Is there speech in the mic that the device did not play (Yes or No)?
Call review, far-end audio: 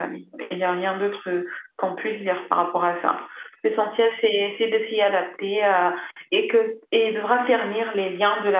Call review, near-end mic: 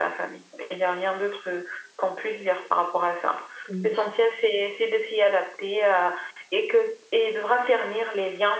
Yes